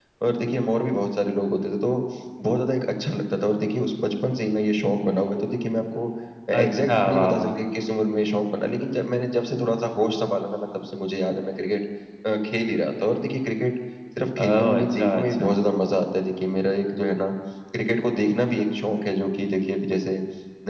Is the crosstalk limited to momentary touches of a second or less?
No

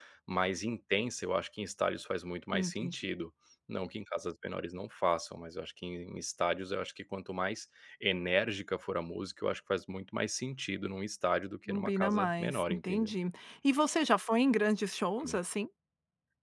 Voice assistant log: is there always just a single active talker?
No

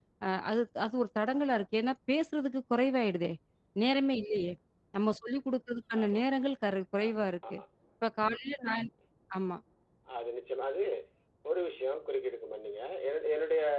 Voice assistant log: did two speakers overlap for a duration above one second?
No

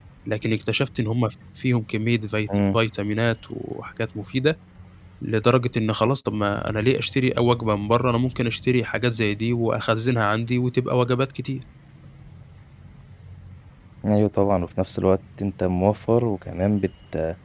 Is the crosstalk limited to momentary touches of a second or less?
Yes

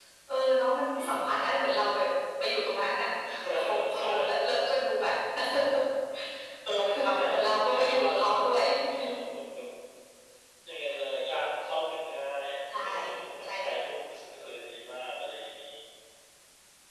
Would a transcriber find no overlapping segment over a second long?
No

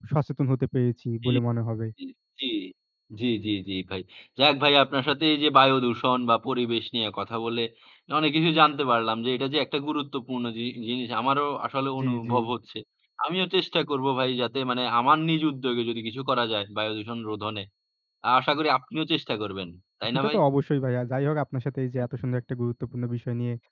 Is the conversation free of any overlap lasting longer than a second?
Yes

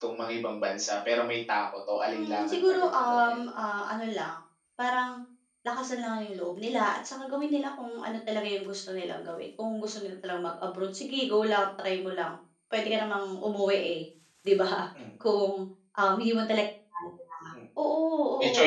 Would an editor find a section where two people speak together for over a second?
Yes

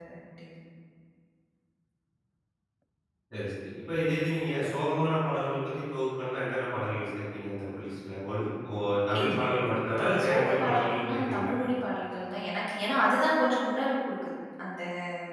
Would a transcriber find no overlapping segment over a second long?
No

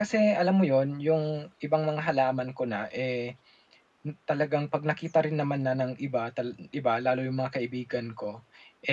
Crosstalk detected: No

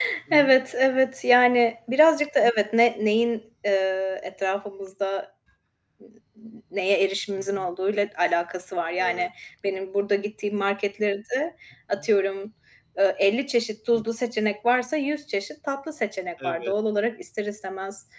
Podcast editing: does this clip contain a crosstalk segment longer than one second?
No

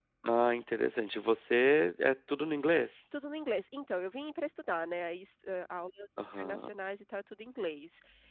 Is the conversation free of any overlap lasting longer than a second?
Yes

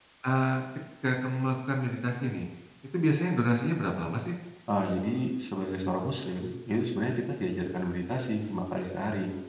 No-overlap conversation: Yes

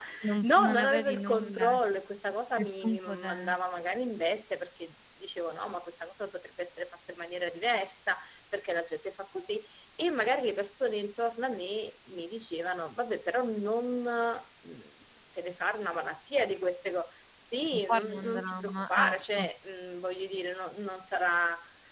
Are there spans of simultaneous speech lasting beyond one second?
Yes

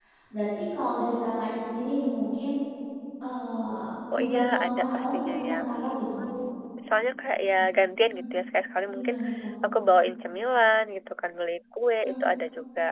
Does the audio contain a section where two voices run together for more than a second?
Yes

